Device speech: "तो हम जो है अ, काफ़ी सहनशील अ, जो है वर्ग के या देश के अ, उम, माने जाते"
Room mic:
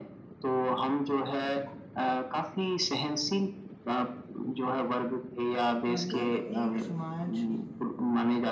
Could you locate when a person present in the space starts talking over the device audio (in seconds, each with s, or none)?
6.0 s